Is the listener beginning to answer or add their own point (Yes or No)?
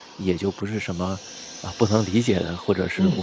Yes